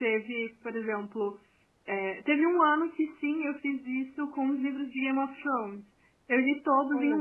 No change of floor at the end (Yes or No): Yes